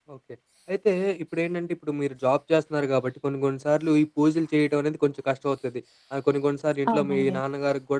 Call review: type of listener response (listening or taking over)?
listening